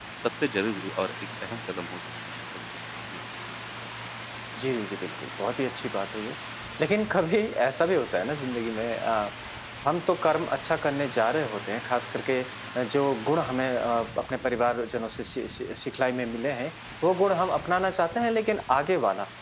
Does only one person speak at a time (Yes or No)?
Yes